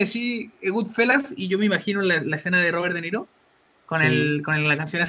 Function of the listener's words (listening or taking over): listening